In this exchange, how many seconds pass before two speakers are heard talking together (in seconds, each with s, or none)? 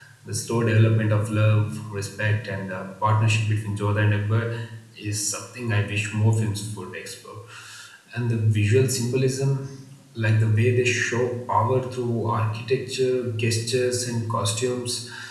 none